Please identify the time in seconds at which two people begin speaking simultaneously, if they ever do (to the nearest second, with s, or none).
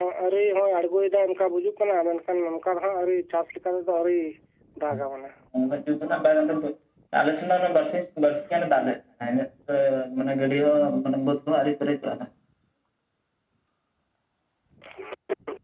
none